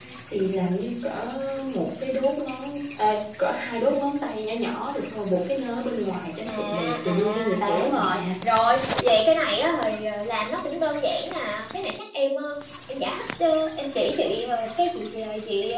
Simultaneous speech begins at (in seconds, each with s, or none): 6.5 s